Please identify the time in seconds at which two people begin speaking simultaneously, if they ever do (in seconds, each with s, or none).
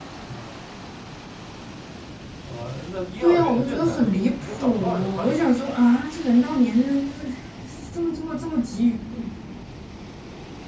3.2 s